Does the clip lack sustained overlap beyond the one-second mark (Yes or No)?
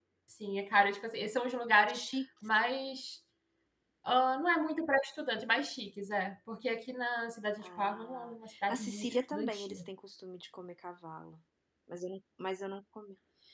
No